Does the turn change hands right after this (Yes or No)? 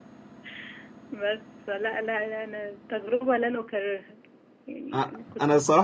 Yes